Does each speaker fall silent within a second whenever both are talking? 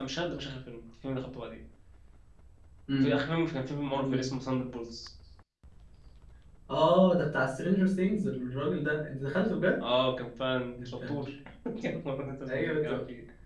Yes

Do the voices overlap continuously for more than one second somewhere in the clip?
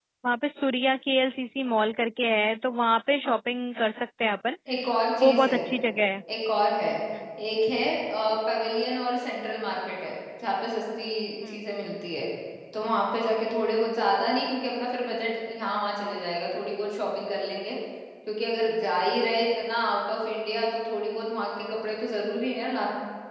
No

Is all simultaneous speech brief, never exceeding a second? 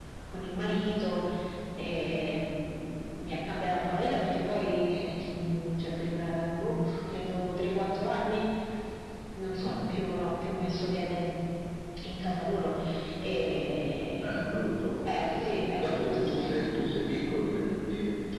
No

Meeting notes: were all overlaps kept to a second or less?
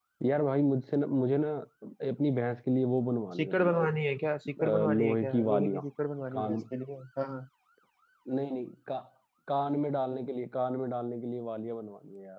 No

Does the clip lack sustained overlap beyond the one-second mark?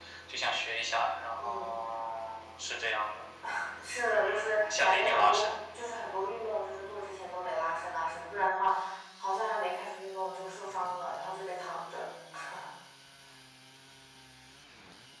No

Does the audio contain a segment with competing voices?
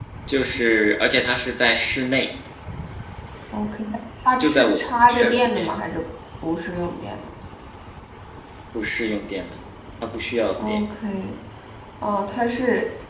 Yes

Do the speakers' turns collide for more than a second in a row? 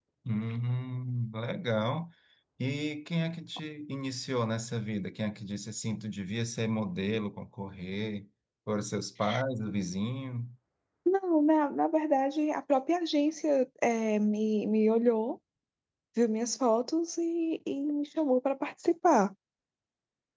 No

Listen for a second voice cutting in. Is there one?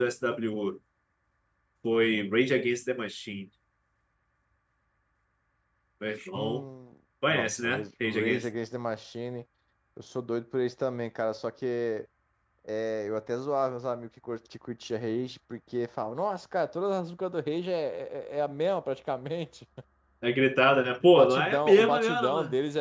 Yes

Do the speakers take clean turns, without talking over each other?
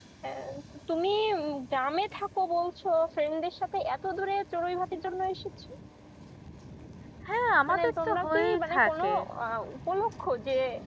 No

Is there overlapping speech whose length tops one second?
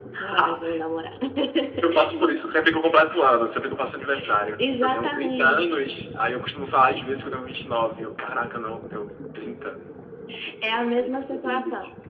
Yes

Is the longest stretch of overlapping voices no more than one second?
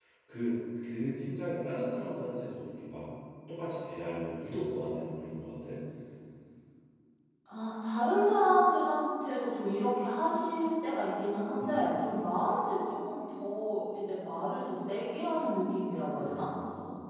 Yes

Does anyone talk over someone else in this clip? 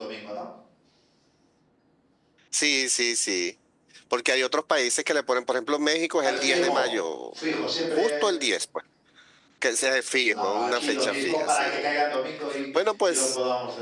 Yes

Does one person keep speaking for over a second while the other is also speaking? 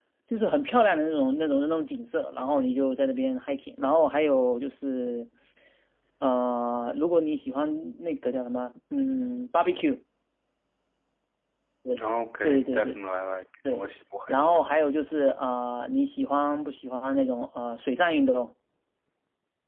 No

